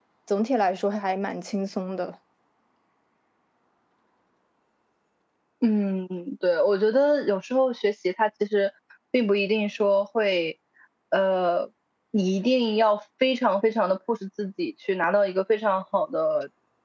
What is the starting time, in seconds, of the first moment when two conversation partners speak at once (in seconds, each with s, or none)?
none